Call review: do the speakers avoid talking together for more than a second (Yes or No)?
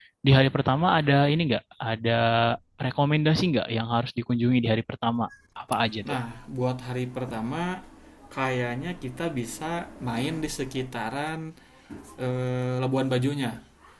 Yes